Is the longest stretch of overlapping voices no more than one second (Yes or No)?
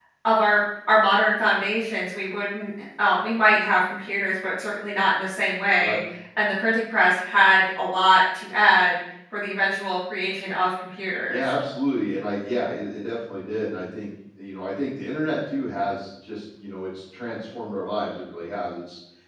Yes